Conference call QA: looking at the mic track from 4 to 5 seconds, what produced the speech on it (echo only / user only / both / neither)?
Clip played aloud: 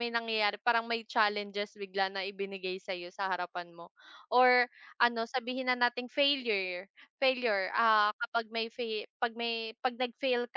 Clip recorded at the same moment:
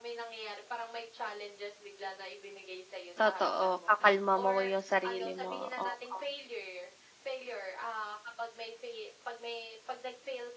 both